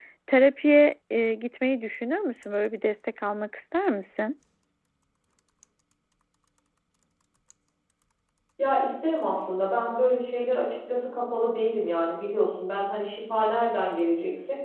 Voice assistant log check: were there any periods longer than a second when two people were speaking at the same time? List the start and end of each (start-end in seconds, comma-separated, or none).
none